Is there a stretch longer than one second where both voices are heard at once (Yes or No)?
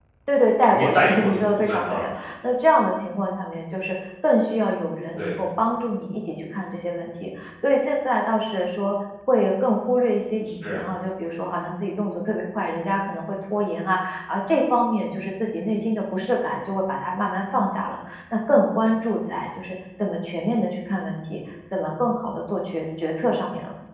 Yes